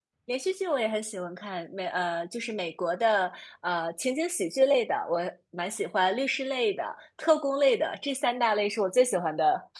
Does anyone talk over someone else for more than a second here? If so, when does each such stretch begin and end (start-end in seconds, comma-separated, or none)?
none